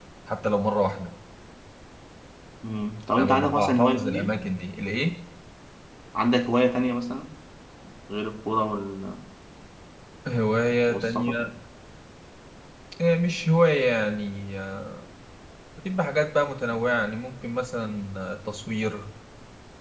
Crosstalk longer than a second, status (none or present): present